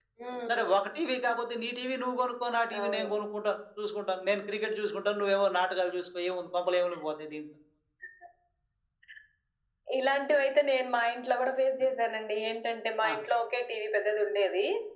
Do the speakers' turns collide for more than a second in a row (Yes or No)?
No